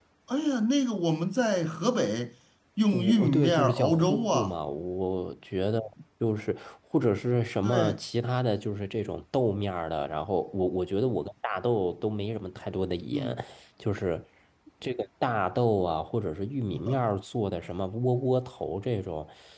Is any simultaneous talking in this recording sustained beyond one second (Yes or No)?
Yes